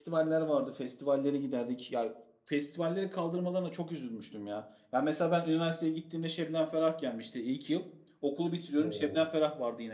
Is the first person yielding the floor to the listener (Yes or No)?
No